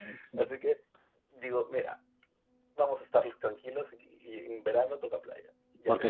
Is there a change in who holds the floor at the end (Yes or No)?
No